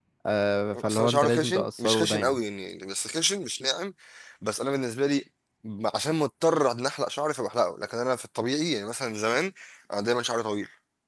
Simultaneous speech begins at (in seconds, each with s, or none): 0.8 s